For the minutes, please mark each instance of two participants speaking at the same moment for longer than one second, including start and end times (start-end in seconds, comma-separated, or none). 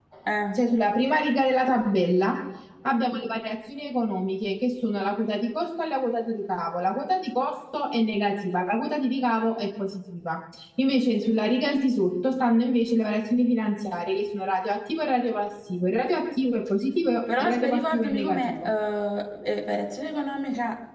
17.4-18.7